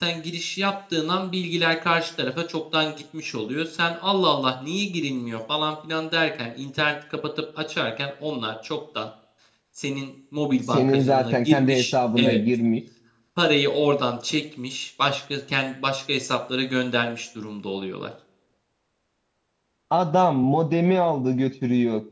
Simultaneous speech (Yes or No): Yes